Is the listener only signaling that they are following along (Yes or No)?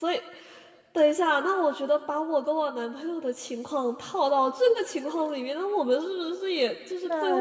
No